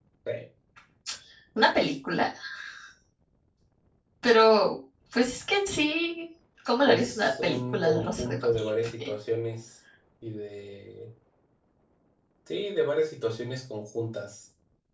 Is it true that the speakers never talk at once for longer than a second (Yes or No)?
No